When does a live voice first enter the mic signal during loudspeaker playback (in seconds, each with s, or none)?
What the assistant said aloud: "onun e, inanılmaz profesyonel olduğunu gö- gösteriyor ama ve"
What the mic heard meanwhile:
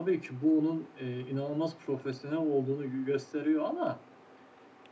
none